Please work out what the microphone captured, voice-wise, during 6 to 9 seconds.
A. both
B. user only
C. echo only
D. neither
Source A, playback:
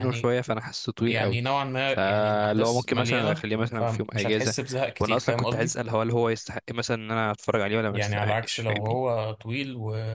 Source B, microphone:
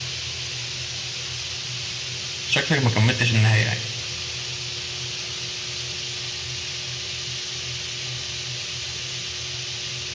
D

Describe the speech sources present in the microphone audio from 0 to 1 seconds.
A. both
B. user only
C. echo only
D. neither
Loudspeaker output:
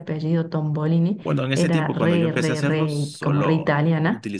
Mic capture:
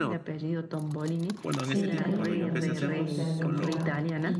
C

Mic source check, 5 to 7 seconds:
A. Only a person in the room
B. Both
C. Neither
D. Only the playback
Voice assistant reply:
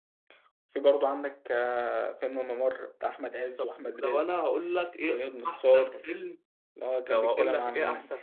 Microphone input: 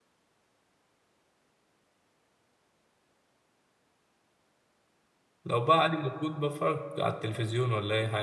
A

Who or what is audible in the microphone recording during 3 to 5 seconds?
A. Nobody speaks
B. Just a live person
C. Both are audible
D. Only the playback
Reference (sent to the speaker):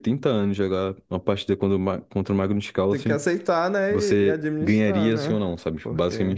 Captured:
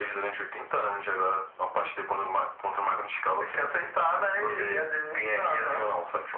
D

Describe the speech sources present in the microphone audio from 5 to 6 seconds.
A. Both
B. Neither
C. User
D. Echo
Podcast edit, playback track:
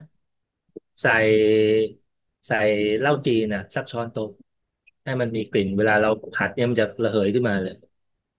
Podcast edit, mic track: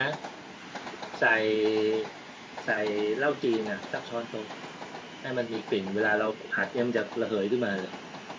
D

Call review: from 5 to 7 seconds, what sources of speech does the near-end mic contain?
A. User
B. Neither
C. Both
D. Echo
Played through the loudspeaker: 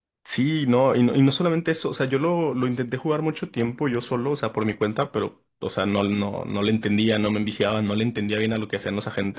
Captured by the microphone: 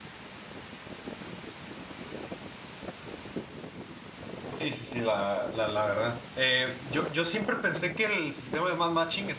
A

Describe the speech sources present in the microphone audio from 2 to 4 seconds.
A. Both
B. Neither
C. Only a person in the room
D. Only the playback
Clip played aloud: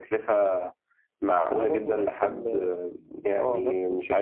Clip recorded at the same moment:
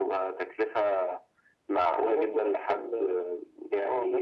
D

